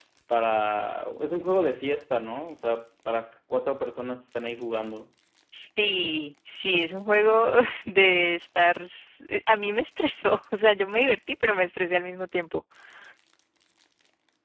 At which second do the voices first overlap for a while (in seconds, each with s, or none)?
none